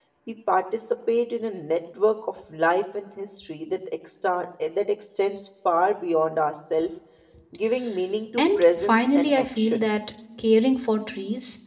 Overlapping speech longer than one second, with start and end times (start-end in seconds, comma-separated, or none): 8.4-9.9